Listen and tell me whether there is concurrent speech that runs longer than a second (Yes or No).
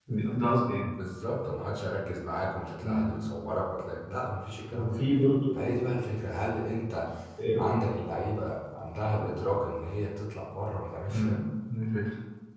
No